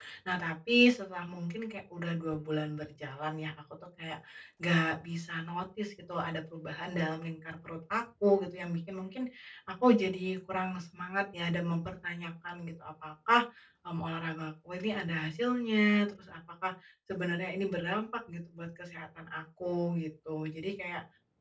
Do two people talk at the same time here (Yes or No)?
No